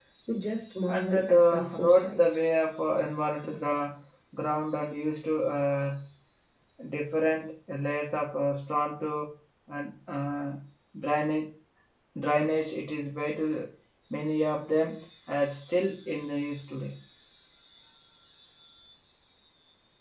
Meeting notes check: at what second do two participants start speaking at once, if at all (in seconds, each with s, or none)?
0.9 s